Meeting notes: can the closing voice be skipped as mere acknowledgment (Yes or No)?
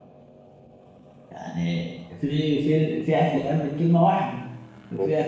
Yes